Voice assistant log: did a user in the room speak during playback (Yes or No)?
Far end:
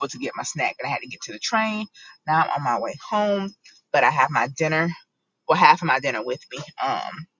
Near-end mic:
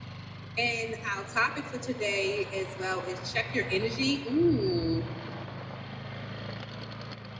Yes